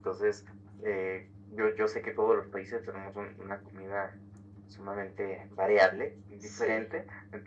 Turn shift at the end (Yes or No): No